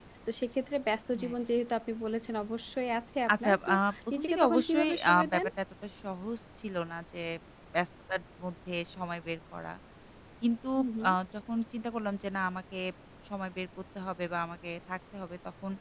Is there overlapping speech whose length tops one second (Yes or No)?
Yes